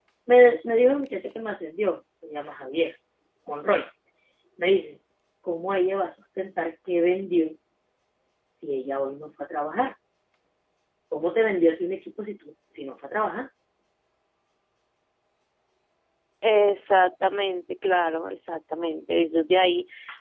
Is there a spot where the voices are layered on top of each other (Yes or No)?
No